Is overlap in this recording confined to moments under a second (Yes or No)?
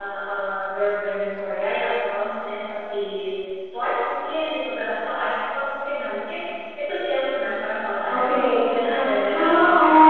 No